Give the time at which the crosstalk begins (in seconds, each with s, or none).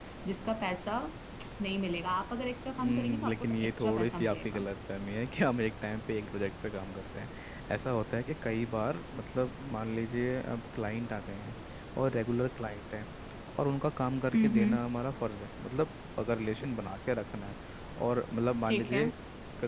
2.8 s